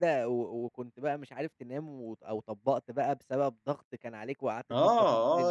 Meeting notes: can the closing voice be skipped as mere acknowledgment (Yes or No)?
No